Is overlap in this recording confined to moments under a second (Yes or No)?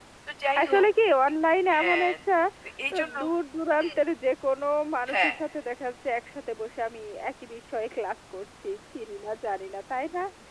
Yes